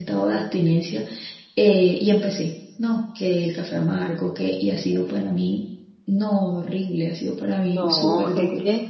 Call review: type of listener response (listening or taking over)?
taking over